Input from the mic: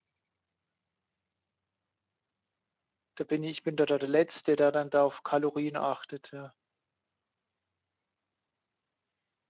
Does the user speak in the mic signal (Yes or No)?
Yes